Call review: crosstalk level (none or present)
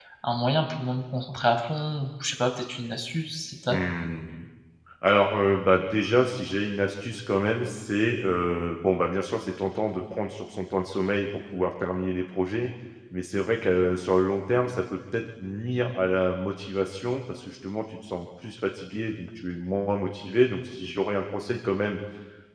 none